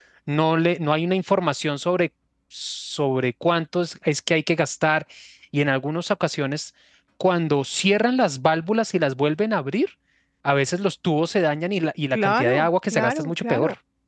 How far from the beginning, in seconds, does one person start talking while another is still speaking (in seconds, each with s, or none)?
12.1 s